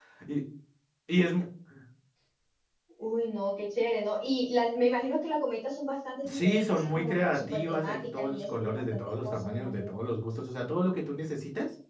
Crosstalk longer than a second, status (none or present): present